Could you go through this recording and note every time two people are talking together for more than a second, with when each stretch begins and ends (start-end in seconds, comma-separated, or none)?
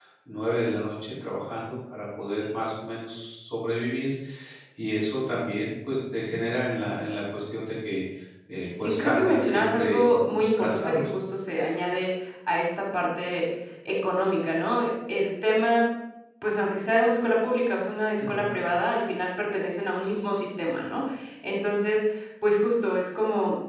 8.8-11.1